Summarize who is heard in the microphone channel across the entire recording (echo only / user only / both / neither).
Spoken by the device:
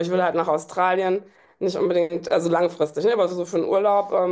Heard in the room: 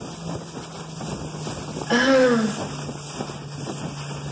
user only